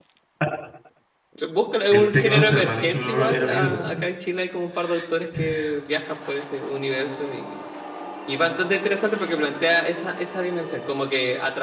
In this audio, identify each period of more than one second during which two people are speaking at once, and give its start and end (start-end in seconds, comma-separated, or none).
1.9-4.0